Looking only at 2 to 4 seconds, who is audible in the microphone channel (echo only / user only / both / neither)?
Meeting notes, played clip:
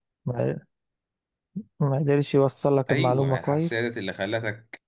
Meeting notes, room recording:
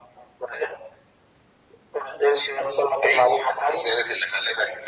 echo only